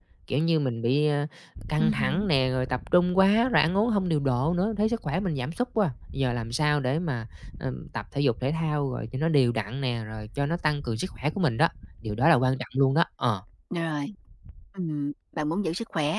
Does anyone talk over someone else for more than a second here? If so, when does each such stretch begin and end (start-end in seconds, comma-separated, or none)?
none